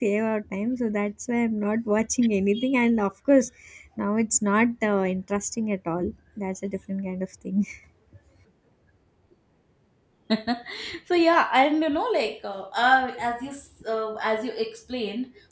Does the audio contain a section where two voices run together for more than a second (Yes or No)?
No